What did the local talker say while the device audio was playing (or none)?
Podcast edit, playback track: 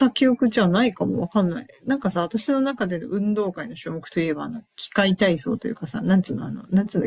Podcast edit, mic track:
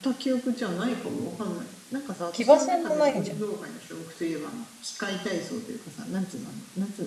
騎馬戦もないんじゃん。